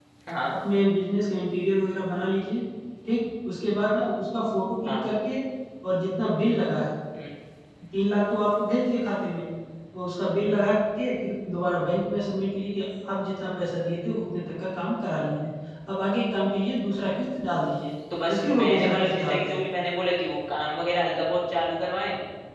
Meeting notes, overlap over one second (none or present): present